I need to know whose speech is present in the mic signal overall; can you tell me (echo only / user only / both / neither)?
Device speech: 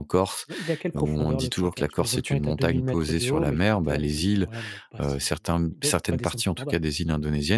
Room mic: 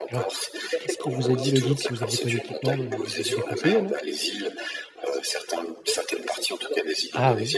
both